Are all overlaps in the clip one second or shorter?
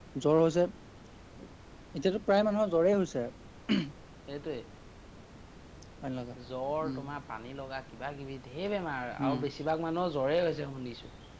Yes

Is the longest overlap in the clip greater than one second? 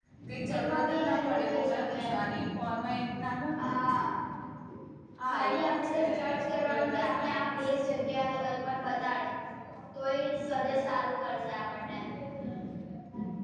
Yes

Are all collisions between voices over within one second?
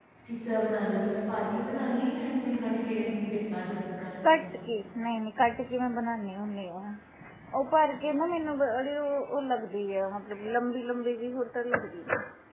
Yes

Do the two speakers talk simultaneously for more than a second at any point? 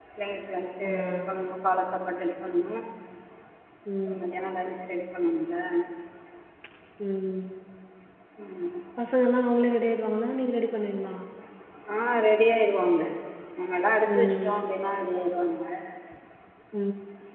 No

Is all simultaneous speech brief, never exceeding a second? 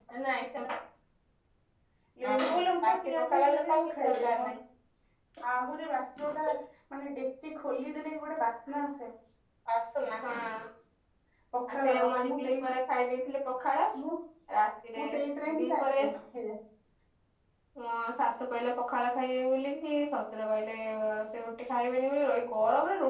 No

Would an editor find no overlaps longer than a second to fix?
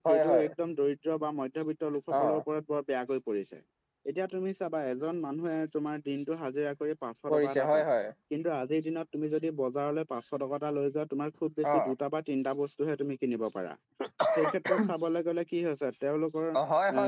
Yes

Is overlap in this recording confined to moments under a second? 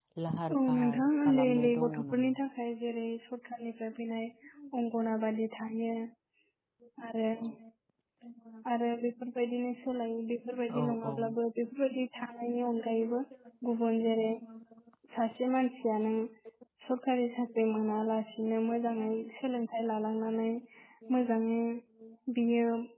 No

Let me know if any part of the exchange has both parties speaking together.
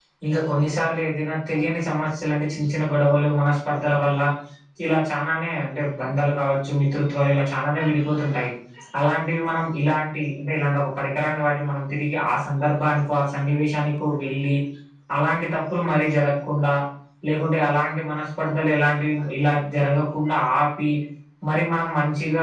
No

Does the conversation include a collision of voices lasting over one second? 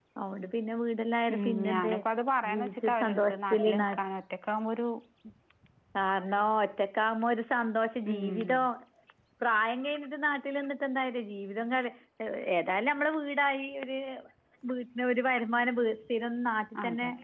Yes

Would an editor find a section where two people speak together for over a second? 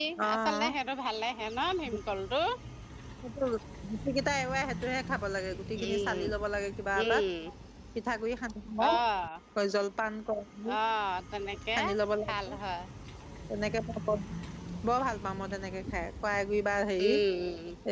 No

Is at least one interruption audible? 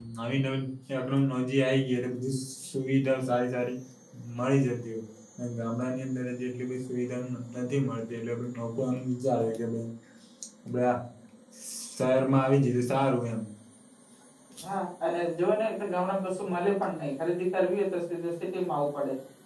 No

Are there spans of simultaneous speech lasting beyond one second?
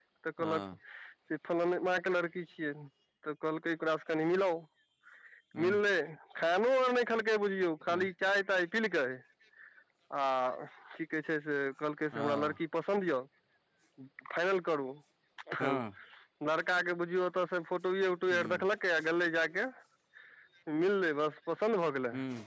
No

